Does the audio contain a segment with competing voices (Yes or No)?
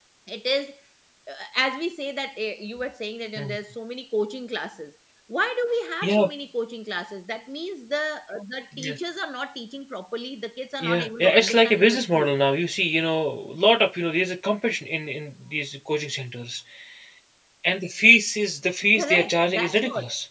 Yes